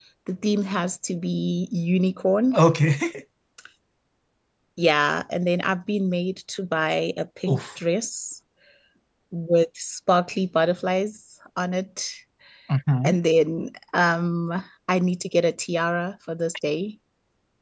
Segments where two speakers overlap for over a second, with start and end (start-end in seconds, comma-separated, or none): none